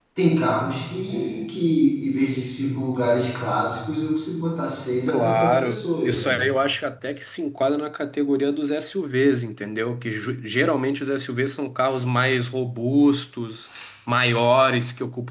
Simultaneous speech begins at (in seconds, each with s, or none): 5.1 s